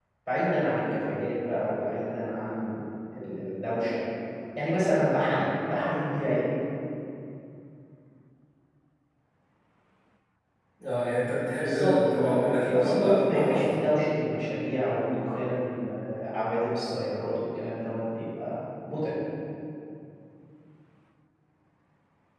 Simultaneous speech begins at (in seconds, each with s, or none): 11.5 s